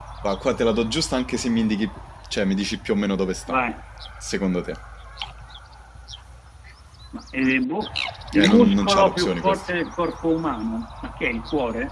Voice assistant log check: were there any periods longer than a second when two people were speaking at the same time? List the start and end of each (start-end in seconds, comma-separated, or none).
8.4-9.6